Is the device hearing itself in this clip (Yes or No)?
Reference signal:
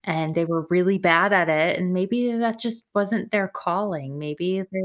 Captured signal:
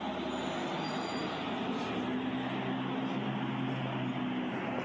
No